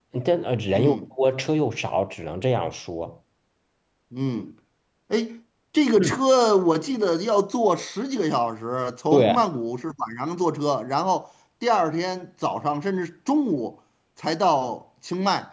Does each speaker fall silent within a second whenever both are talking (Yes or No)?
Yes